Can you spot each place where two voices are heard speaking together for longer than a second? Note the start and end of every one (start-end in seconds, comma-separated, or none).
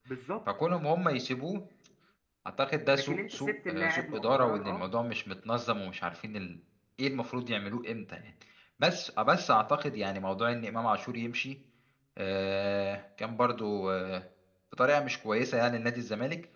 2.9-4.9